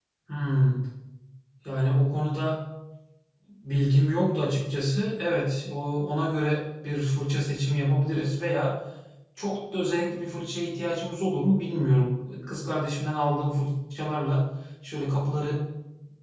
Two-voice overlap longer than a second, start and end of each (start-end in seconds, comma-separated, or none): none